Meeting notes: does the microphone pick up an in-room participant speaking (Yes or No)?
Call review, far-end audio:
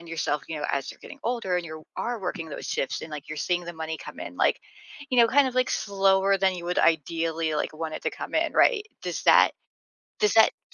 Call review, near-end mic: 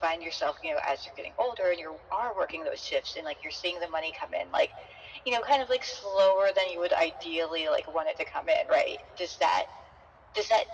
No